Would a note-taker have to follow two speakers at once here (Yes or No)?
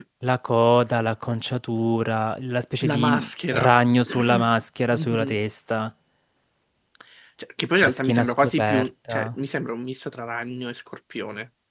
Yes